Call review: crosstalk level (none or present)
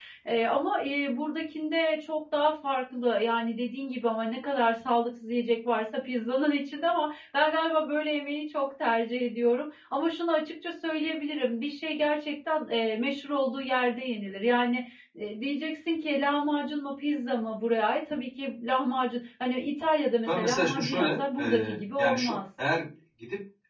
present